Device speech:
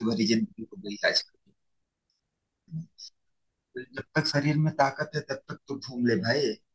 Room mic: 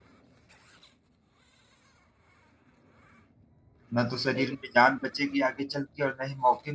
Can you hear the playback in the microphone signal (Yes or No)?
No